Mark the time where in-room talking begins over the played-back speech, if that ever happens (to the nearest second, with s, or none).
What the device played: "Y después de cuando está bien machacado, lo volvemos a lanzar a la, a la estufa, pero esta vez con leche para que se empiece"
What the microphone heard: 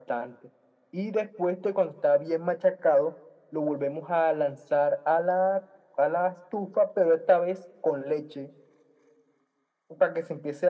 none